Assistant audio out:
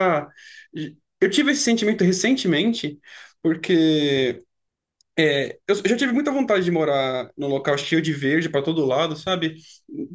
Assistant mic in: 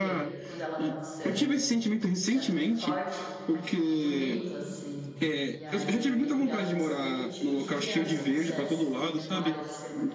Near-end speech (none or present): present